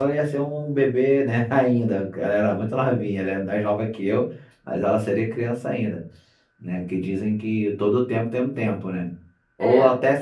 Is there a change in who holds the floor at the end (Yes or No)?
No